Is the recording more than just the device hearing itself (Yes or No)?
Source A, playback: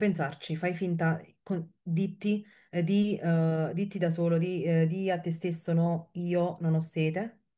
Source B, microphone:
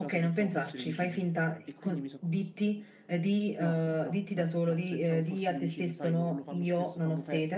Yes